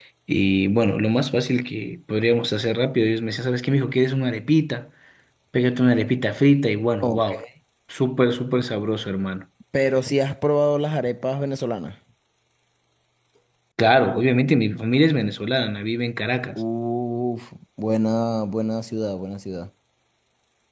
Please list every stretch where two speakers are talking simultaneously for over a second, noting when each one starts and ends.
none

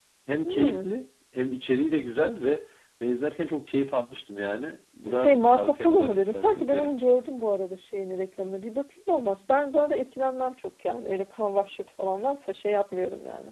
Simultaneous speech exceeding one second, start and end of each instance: 5.2-7.2

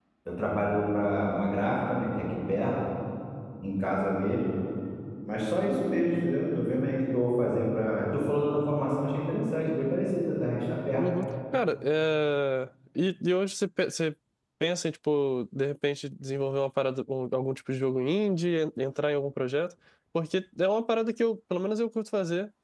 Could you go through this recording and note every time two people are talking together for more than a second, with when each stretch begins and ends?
none

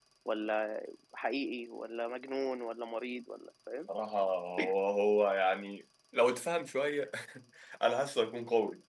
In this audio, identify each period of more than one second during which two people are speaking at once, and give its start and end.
none

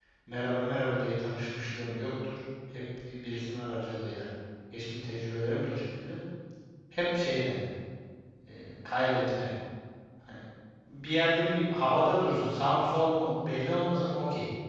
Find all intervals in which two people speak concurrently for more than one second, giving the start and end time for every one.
none

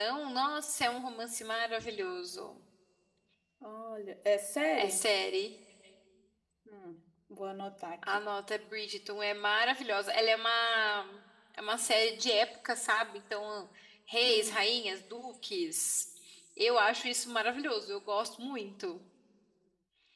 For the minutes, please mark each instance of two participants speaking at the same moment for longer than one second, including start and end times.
none

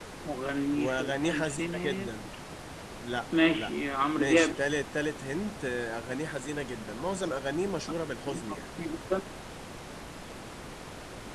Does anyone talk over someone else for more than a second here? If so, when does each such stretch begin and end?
0.8-2.1

